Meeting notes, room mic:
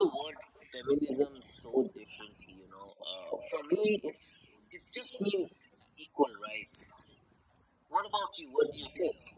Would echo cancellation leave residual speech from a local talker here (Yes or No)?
No